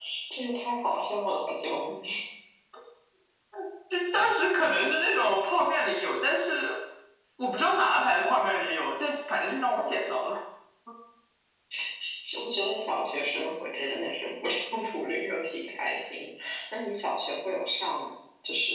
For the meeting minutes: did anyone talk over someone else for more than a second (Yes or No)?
No